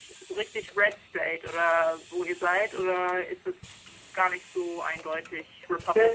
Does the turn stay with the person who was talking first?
No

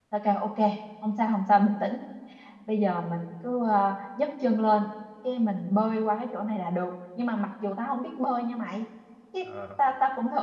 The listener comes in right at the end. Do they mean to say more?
No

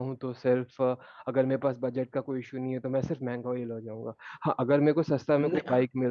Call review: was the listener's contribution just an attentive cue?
Yes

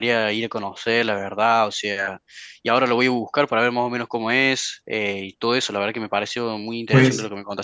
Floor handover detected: Yes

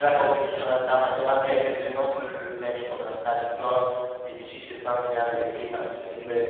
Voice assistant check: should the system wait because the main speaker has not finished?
Yes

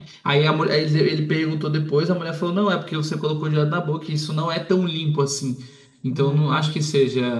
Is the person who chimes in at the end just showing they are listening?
Yes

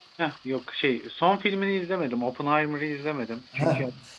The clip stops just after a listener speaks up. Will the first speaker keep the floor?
Yes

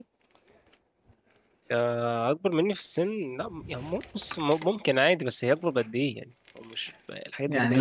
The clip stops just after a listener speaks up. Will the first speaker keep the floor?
No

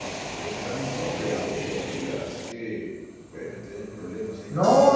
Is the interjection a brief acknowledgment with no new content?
No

